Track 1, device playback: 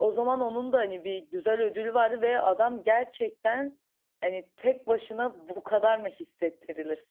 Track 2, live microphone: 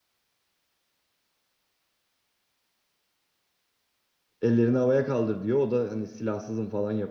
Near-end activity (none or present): present